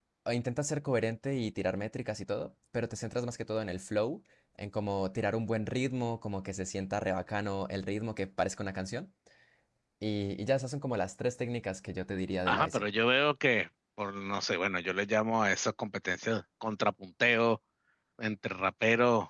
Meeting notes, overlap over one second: none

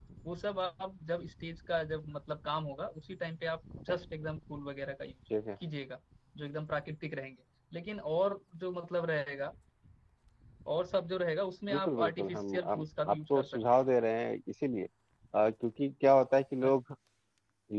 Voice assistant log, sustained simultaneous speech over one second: present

